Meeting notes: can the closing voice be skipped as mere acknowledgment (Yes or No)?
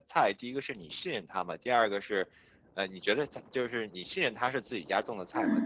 Yes